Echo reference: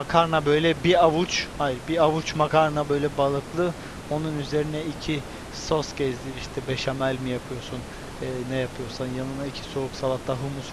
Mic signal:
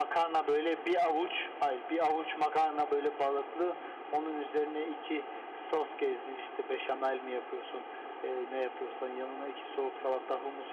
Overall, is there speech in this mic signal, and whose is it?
echo only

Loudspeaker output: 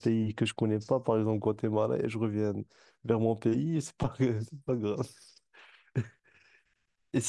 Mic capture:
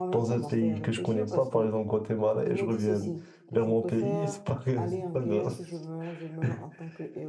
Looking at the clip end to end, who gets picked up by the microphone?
both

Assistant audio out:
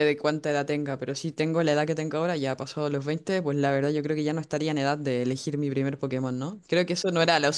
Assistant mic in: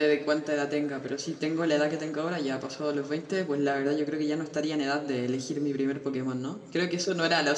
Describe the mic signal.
echo only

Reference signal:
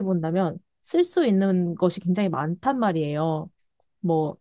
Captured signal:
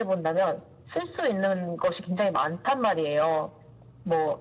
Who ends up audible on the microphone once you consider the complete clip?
echo only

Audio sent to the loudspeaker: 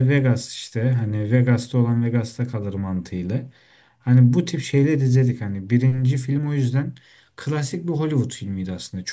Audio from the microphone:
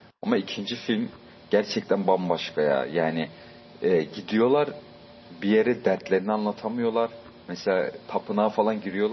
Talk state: user only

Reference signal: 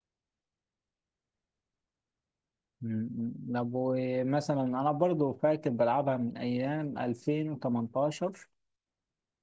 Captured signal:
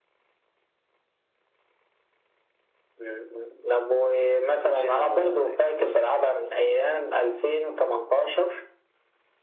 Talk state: both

